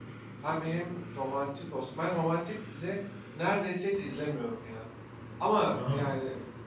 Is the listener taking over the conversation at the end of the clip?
No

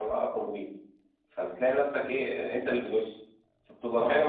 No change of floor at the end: Yes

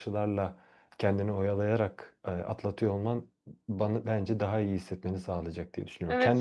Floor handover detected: Yes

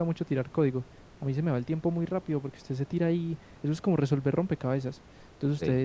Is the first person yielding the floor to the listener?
No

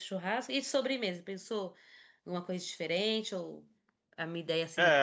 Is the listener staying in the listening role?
No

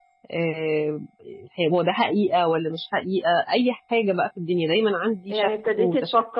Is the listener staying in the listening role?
No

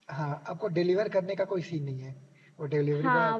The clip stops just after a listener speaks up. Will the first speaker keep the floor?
No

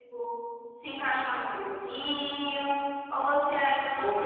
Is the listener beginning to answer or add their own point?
Yes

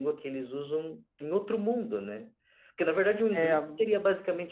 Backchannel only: Yes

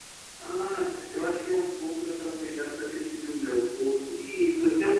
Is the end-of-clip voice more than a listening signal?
Yes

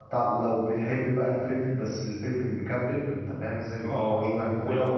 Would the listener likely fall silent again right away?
No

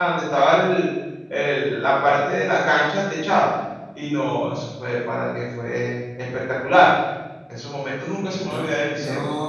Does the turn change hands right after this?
Yes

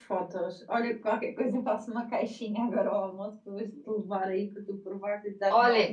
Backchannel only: No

